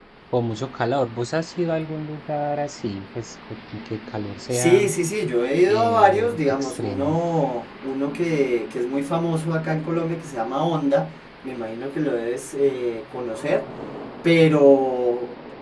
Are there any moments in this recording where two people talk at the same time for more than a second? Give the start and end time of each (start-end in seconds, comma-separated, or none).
5.7-7.2